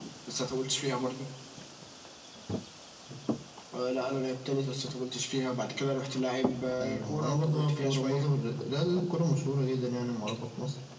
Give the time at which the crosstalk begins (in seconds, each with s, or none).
6.8 s